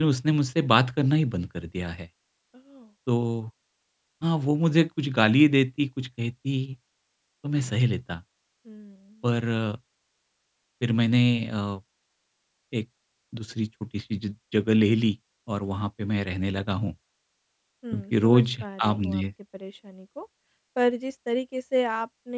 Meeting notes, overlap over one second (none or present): present